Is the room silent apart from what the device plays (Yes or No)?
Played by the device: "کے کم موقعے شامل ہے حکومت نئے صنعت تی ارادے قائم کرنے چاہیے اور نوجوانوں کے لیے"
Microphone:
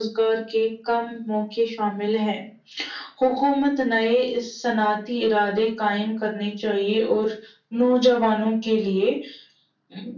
Yes